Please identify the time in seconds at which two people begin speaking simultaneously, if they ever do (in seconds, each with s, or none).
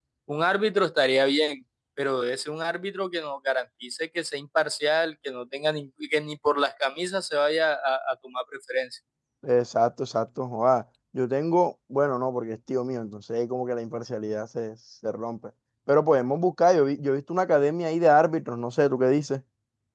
none